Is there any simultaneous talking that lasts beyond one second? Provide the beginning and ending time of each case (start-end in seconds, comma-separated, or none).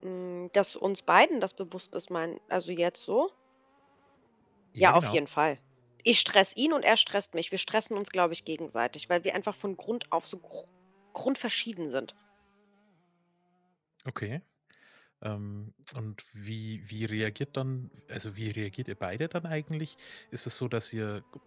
none